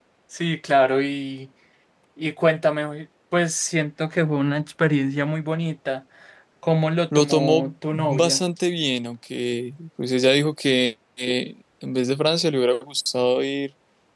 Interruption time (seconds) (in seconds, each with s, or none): 7.2 s